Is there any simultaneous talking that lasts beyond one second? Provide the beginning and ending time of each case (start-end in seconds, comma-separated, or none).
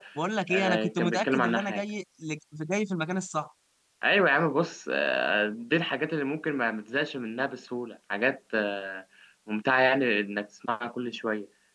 0.5-1.8